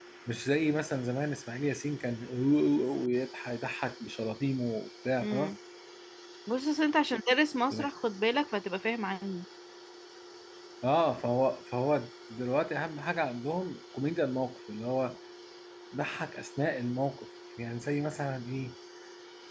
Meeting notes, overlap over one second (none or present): none